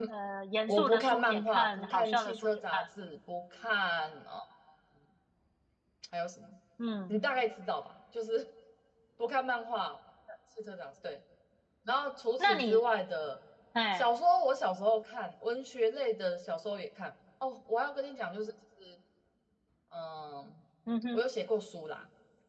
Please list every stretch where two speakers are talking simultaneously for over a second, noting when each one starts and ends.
0.7-2.8

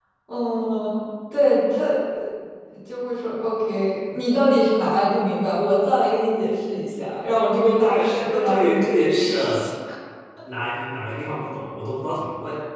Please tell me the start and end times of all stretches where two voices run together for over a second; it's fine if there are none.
7.8-9.7

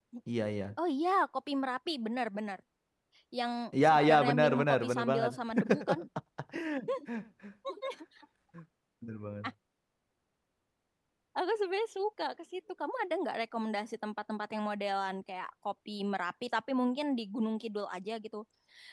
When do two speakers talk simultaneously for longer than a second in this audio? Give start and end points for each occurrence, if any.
3.9-5.3

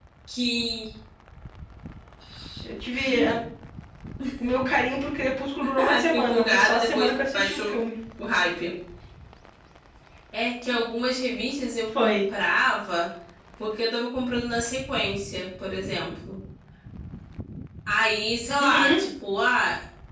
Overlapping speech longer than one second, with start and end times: 5.8-7.8

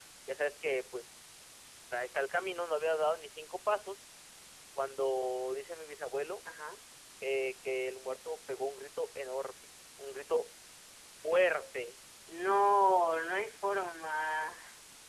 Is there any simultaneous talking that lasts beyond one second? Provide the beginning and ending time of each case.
none

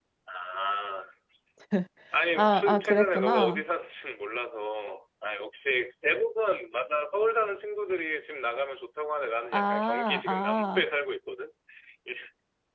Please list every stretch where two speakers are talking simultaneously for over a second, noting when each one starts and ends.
2.4-3.6, 9.5-10.8

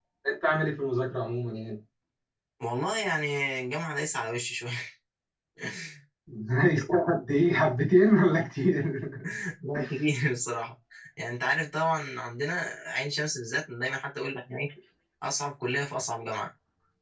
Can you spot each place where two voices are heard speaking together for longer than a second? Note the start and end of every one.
none

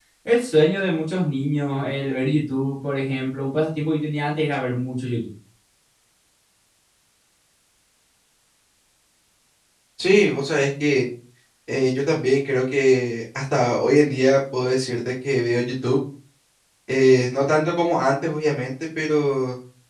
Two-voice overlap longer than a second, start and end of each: none

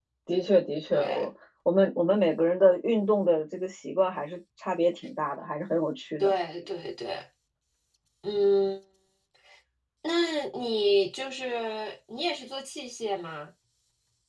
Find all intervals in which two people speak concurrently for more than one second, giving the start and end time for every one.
none

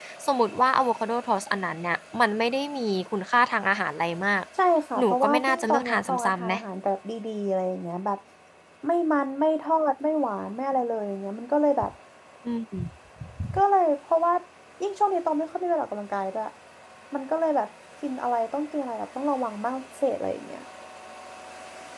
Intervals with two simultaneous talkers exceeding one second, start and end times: 5.0-6.5

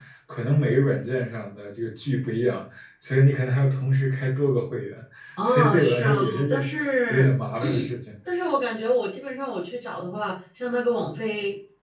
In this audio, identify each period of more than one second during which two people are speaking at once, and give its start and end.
5.4-6.7

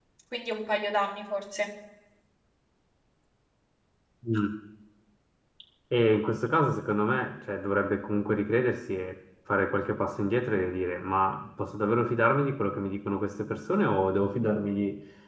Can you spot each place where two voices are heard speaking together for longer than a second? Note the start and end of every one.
none

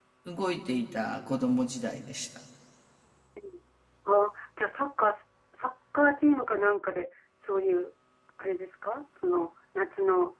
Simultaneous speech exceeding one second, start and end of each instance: none

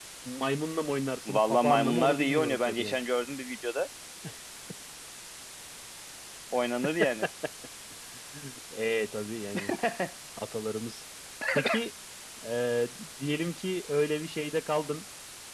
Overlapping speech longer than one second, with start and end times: 1.2-3.0

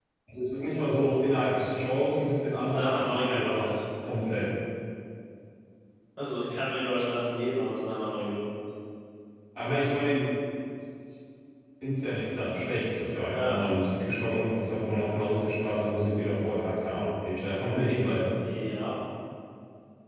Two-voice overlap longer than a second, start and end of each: 2.5-3.8

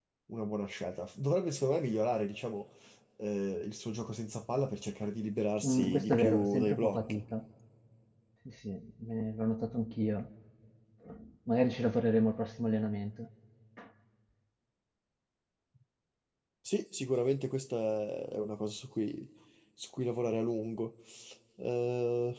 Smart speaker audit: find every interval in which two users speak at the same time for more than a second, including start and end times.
5.6-7.2

